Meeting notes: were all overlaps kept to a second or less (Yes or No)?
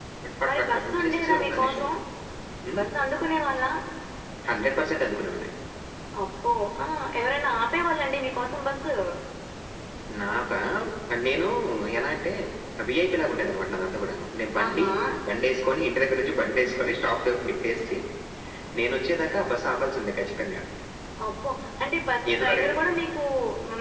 No